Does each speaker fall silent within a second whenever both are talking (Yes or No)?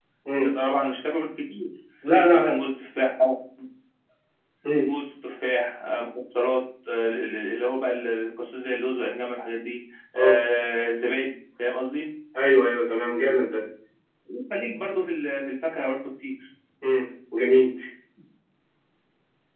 Yes